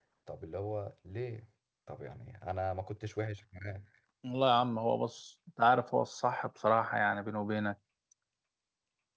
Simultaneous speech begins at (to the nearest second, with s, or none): none